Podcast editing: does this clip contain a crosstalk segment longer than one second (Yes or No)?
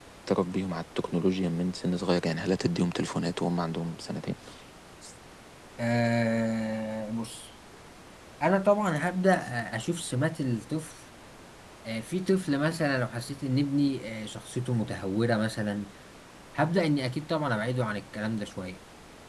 No